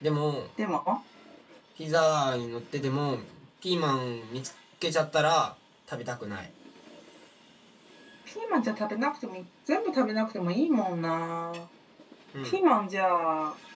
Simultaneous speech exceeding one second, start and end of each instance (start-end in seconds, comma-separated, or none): none